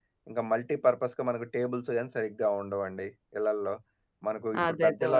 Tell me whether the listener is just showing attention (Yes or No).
Yes